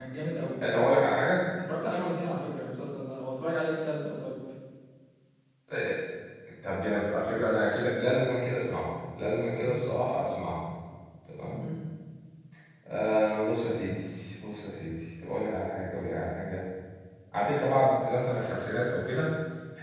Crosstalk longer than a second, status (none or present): none